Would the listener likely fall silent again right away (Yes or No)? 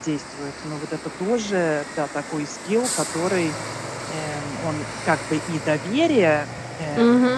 No